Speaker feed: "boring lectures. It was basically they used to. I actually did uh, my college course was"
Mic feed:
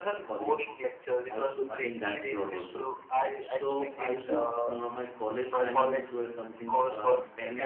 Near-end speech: present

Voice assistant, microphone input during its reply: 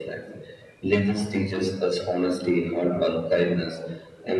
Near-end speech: none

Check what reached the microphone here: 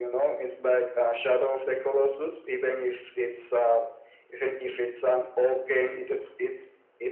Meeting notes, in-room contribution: none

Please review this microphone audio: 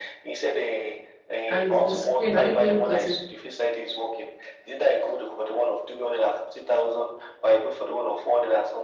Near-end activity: present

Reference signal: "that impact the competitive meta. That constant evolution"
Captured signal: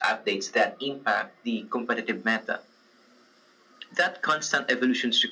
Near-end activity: none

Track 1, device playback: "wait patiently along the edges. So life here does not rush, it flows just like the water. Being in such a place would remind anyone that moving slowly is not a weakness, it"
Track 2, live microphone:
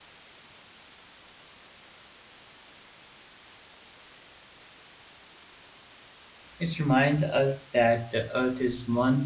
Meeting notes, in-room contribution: present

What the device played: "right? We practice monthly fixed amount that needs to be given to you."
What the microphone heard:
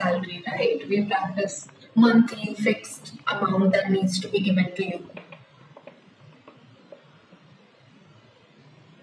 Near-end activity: none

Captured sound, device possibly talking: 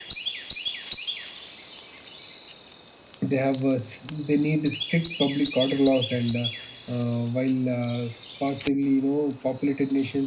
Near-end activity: present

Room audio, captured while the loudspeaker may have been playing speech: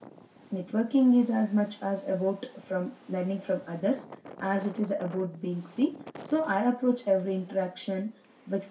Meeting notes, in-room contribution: none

